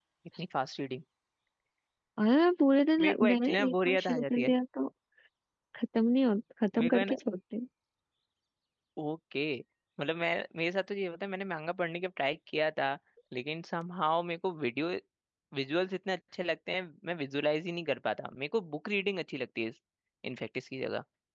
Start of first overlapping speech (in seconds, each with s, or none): 3.0 s